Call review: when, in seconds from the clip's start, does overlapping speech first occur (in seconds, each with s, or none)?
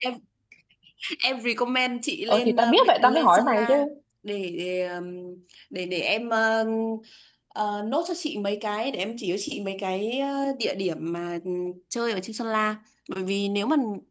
2.3 s